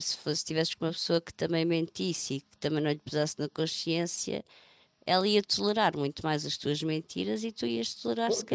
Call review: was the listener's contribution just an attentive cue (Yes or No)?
No